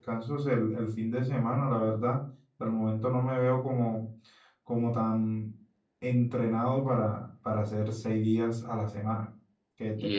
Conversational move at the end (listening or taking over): listening